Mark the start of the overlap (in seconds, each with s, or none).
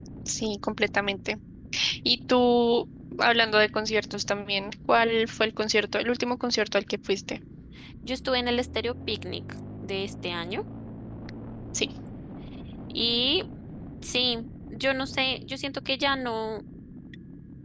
none